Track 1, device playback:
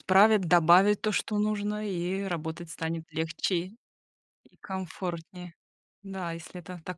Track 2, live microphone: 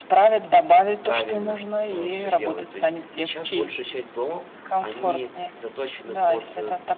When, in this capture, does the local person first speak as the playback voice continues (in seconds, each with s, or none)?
1.0 s